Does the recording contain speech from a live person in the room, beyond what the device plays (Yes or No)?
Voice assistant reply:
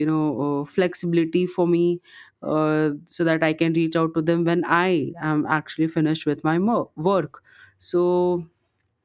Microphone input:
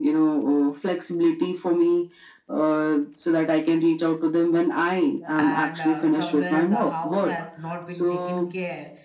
Yes